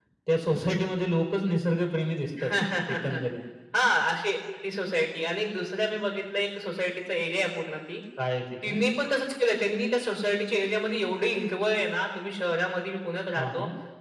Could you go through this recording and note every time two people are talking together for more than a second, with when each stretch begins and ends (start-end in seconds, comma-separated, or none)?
none